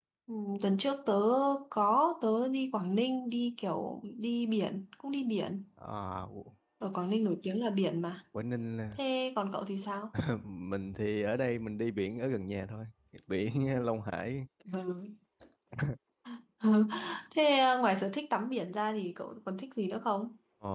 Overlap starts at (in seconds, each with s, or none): none